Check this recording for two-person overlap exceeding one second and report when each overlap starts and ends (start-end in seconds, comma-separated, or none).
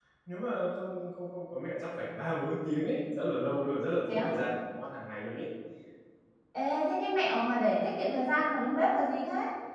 none